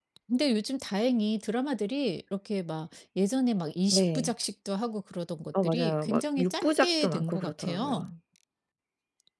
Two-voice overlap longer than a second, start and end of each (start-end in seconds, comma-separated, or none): 5.6-8.1